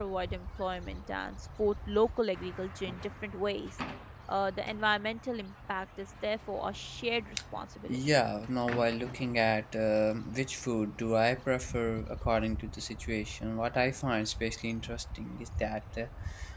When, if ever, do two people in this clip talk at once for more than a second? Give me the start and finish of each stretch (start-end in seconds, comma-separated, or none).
none